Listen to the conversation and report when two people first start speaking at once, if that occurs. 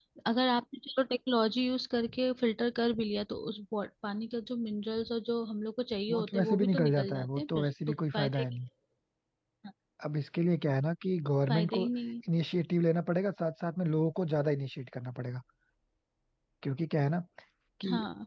6 s

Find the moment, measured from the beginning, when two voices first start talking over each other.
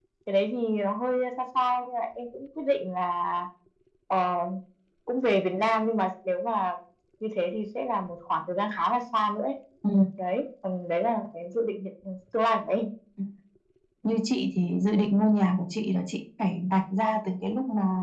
none

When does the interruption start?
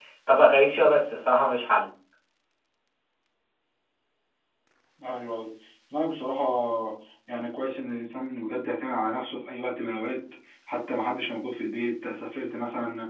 none

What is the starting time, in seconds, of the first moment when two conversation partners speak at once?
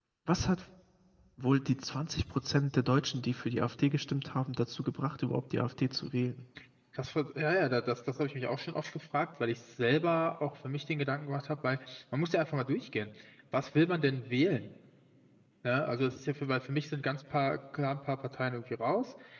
none

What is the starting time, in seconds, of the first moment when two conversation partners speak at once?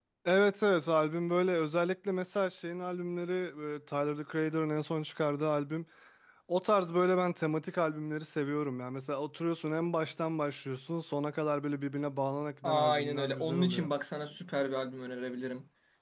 13 s

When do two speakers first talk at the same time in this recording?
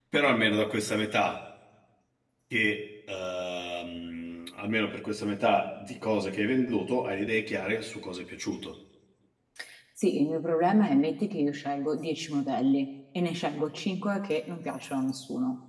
none

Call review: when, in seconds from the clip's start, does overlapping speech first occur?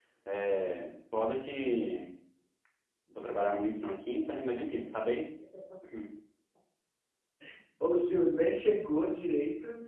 none

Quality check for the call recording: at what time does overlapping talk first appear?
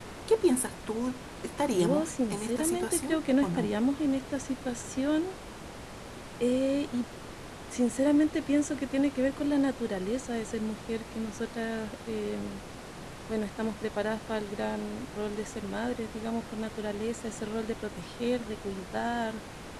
2 s

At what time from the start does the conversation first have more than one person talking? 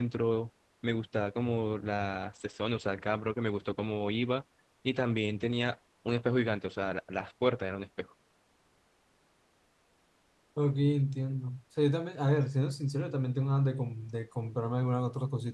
none

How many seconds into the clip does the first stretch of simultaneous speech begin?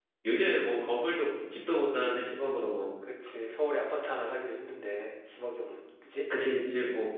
none

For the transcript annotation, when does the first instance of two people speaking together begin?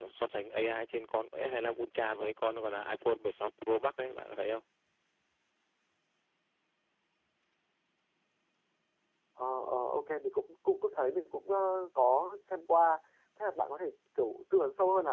none

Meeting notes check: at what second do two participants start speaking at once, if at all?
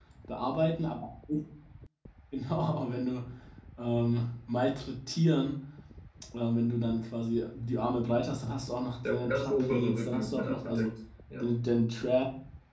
9 s

